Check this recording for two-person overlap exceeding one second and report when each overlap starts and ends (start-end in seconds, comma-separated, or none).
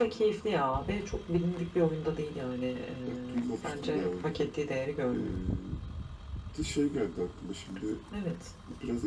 3.1-4.4